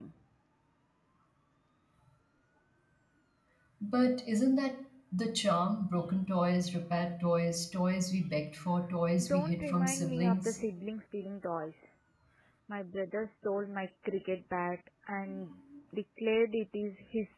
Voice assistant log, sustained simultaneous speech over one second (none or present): present